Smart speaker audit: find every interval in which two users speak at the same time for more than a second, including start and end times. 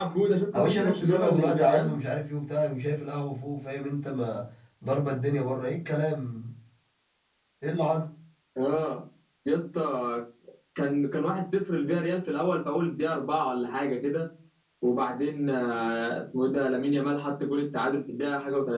0.6-1.9

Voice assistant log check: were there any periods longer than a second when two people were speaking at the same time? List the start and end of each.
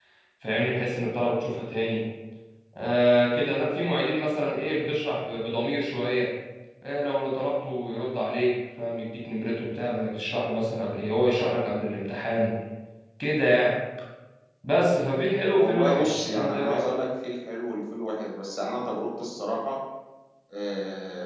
15.6-16.9

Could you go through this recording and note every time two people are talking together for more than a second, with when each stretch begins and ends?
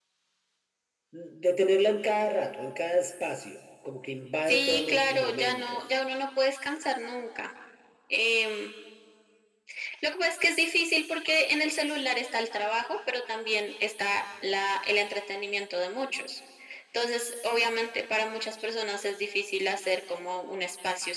4.4-5.8

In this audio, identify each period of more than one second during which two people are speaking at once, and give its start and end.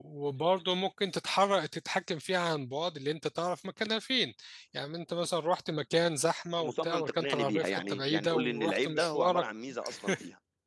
6.6-9.4

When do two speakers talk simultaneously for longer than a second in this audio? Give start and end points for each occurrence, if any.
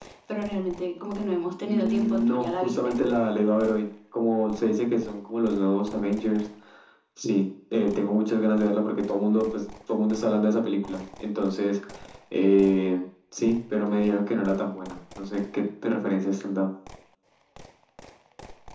1.6-2.9

